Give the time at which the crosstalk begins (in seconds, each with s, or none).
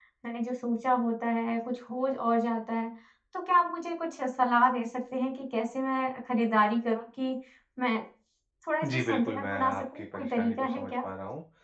8.8 s